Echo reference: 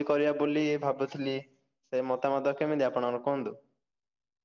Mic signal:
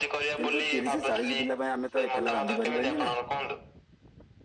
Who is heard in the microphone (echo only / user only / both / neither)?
both